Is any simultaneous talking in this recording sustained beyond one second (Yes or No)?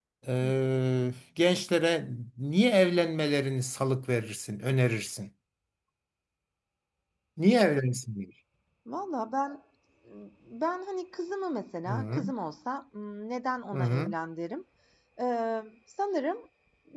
No